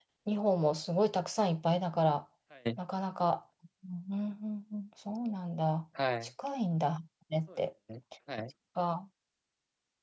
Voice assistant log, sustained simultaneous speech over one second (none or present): none